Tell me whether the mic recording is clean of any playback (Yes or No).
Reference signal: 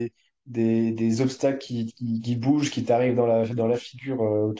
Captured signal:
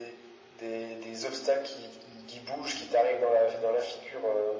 No